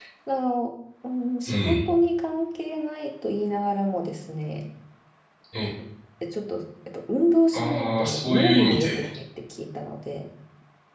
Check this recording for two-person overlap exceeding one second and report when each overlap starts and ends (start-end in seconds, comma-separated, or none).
7.5-9.0